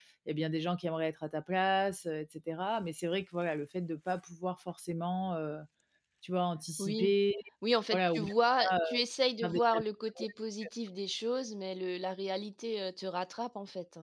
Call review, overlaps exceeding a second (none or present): none